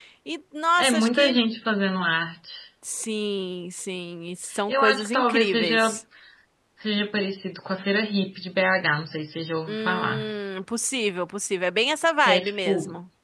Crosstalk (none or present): present